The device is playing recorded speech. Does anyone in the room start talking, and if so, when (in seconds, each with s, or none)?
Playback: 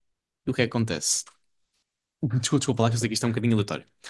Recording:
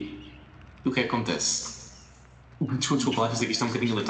3.0 s